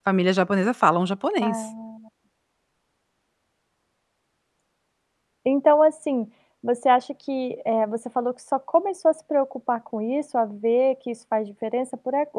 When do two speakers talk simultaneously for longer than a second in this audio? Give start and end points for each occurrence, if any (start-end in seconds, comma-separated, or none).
none